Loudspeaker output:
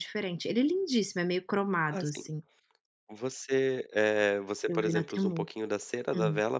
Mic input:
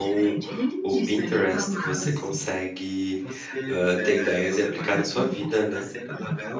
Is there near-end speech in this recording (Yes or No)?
Yes